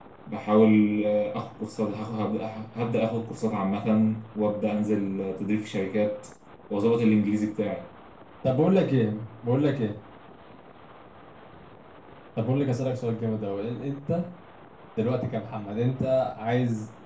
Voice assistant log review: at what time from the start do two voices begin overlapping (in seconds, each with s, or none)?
none